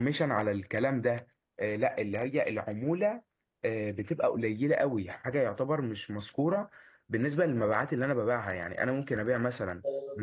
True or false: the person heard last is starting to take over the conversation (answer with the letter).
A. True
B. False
B